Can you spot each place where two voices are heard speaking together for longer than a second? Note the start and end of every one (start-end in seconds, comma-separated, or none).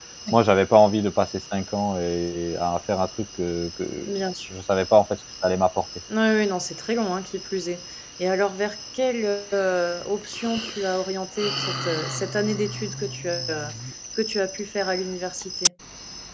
none